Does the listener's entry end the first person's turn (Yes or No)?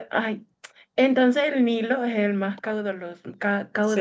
Yes